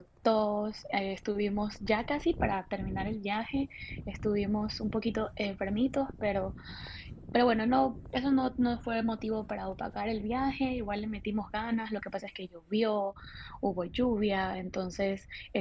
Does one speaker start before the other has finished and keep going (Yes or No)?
No